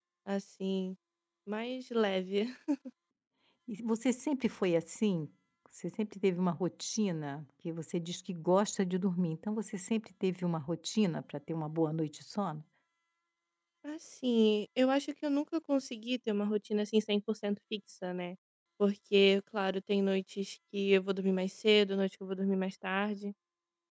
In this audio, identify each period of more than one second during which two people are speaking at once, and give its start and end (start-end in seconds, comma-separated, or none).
none